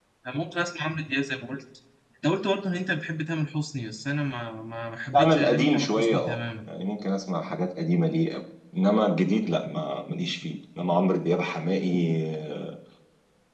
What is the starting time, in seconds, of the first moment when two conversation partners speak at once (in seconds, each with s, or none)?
5.1 s